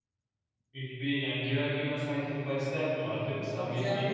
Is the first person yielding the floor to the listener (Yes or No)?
Yes